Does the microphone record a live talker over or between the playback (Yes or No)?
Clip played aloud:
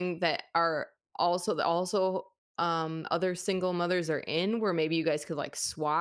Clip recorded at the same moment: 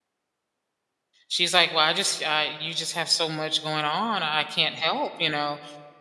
Yes